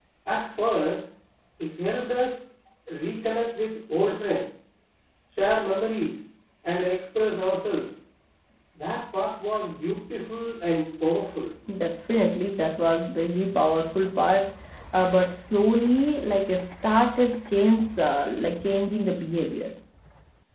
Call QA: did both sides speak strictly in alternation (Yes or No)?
Yes